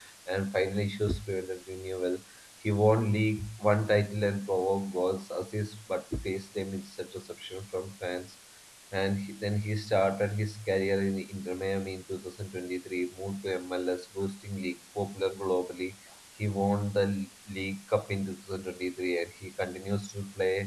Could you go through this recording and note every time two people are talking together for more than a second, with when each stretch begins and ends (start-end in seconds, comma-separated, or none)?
none